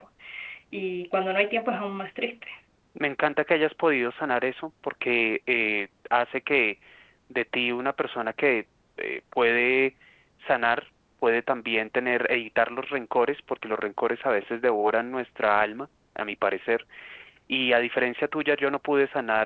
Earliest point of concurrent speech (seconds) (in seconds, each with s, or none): none